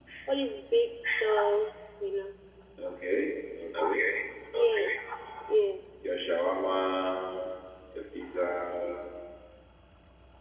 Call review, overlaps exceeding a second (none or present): none